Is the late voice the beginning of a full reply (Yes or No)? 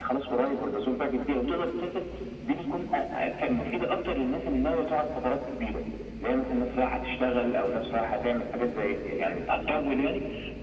No